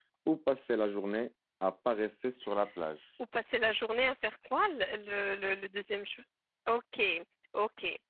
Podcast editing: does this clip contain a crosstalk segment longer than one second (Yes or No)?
No